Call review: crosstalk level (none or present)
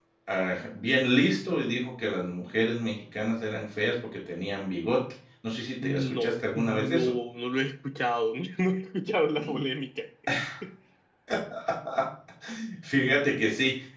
present